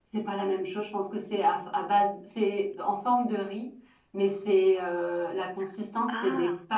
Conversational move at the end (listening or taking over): listening